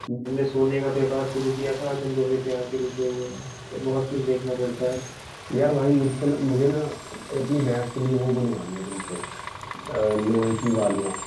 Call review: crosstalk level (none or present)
none